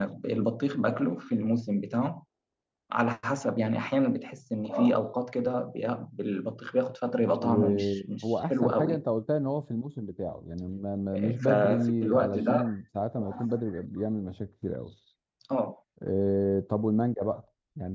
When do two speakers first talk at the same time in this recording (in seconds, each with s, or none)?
7.4 s